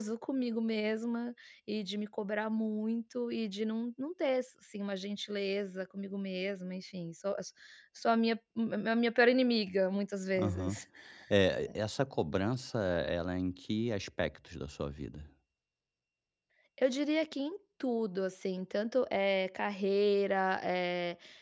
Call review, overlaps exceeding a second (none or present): none